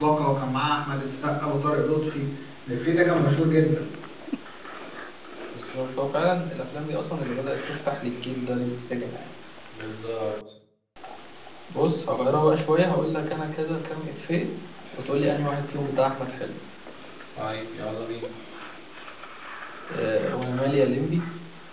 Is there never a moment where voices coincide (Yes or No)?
Yes